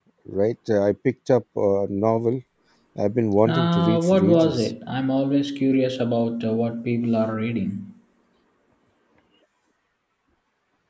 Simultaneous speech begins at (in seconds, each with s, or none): 3.5 s